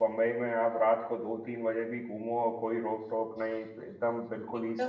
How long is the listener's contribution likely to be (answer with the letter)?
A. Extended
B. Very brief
A